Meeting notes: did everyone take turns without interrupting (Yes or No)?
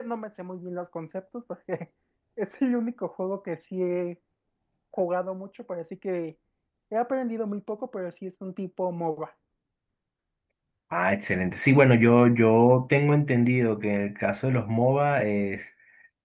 Yes